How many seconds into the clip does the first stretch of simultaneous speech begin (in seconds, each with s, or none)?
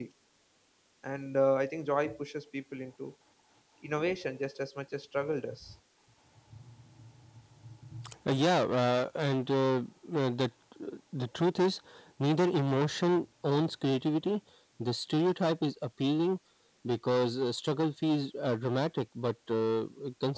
none